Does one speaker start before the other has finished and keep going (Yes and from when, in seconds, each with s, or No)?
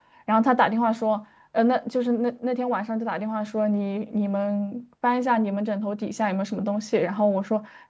No